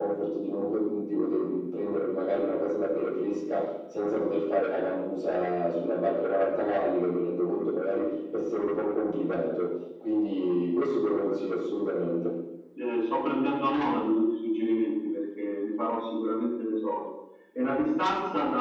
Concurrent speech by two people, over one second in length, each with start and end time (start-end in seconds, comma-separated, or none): none